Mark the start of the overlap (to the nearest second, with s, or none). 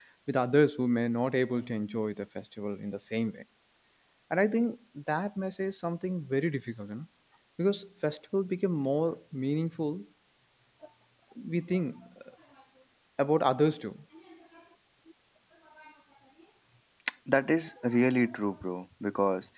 none